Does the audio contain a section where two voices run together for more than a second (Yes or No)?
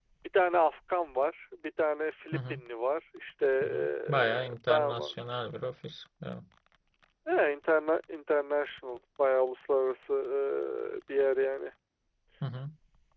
Yes